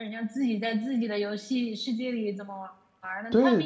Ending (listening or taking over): taking over